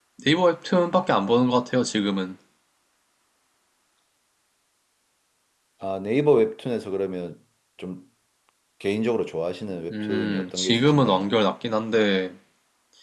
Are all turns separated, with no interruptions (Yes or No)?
No